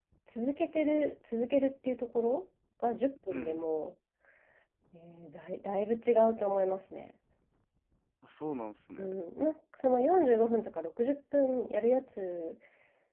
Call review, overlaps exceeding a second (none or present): none